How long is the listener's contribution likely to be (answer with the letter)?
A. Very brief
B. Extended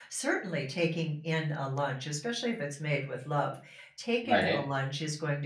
A